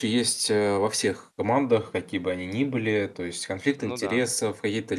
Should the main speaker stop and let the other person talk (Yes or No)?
No